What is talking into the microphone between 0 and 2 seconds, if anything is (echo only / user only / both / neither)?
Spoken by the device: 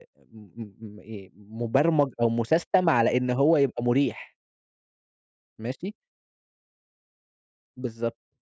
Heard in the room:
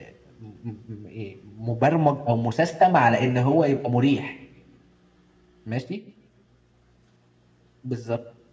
echo only